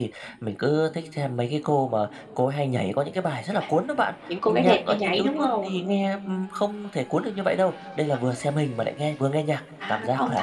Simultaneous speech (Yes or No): Yes